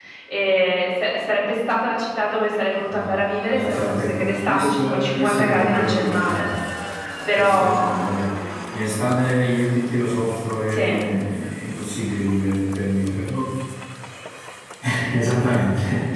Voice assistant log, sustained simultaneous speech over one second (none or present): present